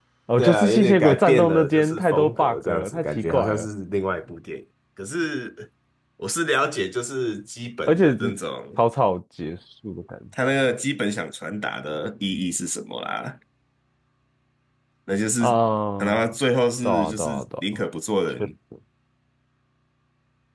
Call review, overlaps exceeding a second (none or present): present